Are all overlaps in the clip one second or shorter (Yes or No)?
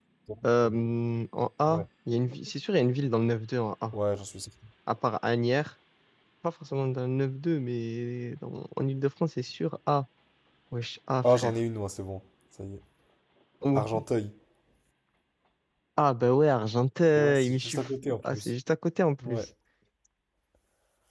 No